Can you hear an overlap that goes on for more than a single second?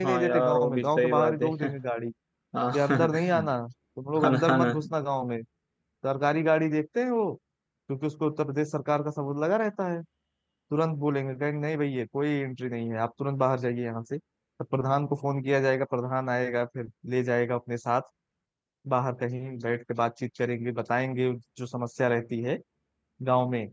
Yes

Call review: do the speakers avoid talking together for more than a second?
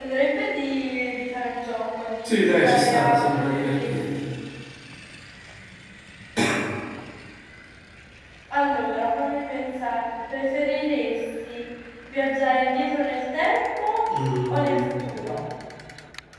No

